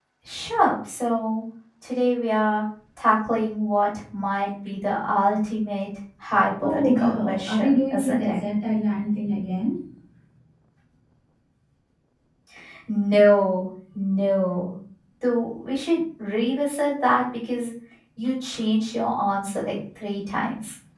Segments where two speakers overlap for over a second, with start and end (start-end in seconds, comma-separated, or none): 6.6-8.4